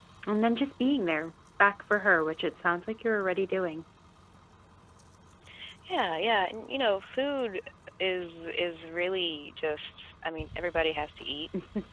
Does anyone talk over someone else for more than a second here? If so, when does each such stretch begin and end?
none

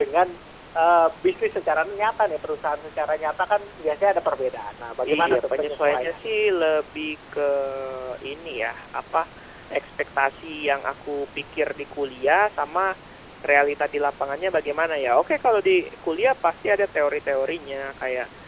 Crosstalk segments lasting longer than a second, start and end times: 5.0-6.3

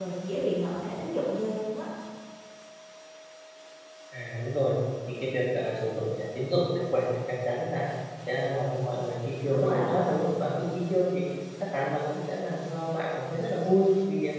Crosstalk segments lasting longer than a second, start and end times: none

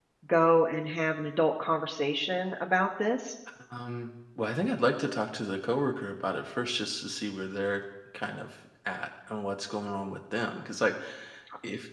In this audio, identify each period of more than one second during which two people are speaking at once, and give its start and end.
none

